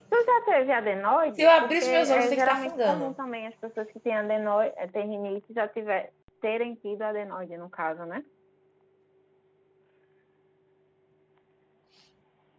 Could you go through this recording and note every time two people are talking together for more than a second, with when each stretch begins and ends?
1.4-3.1

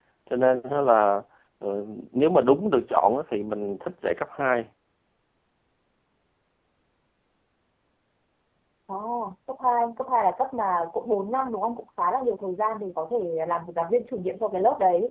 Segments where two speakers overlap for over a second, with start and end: none

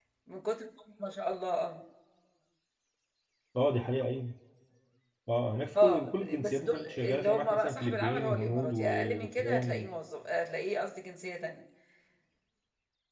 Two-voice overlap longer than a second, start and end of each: 5.8-9.9

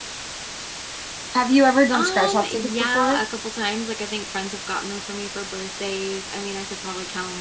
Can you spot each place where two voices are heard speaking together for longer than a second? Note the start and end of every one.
1.9-3.2

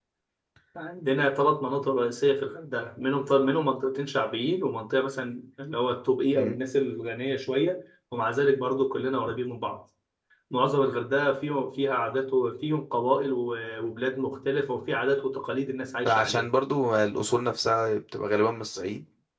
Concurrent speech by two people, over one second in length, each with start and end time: none

